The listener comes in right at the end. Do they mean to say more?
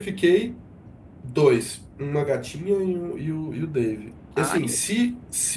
No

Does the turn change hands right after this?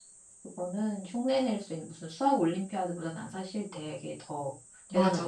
Yes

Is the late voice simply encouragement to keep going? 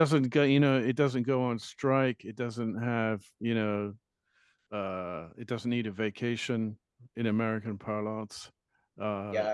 No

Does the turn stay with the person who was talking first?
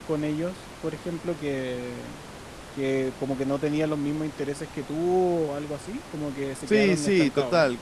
No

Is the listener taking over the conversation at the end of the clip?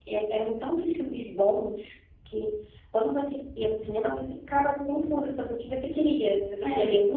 No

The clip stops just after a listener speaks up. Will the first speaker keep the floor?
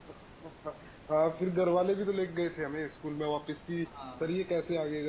Yes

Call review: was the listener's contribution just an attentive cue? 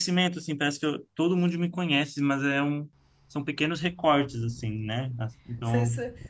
No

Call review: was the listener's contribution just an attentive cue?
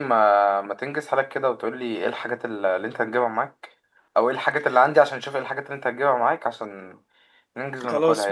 No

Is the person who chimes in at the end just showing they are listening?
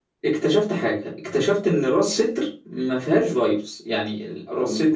No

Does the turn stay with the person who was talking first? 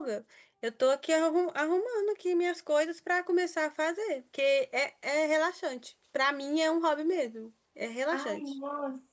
No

